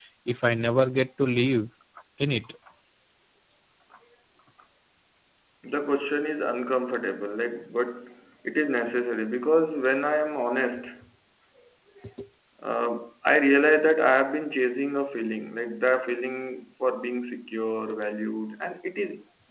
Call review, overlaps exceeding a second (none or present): none